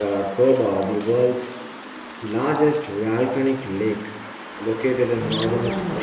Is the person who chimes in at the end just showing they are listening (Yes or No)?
Yes